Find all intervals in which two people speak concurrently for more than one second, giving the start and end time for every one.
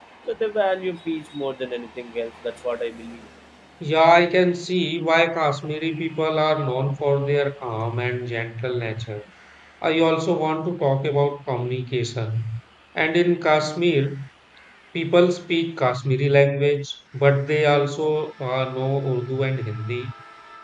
none

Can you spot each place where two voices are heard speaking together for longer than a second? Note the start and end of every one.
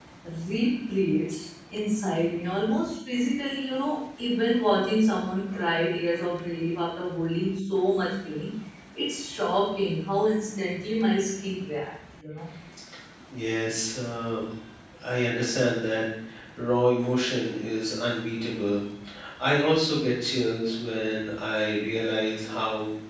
none

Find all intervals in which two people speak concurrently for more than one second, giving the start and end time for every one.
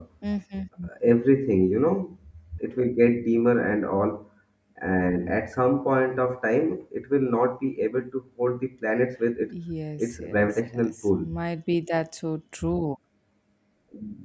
10.0-11.3

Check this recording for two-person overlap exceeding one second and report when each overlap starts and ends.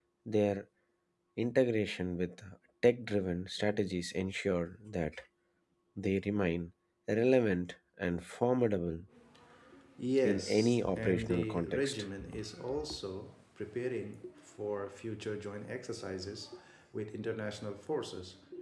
10.2-11.9

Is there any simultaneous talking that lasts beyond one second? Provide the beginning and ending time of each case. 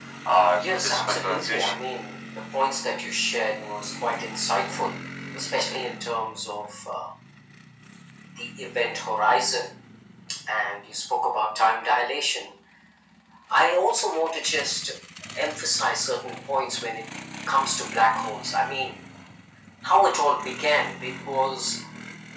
0.5-1.8

